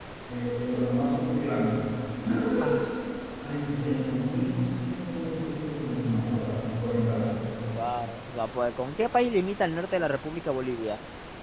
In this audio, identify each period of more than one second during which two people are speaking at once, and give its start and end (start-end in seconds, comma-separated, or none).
none